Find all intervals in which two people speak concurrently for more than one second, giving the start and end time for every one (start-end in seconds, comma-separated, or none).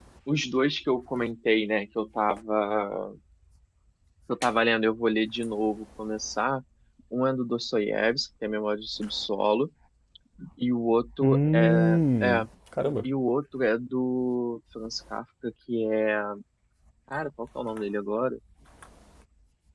11.2-12.4